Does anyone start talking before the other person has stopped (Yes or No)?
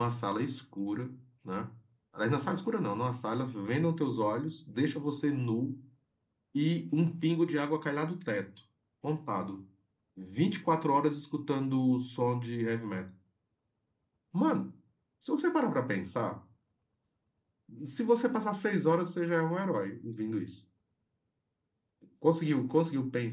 No